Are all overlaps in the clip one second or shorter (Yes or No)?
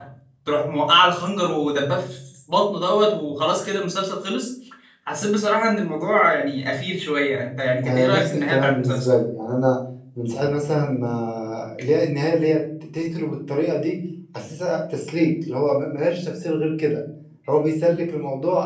No